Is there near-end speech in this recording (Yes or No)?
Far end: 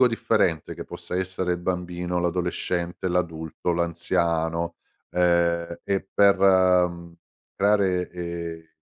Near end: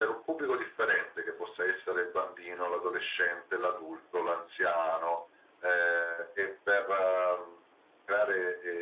No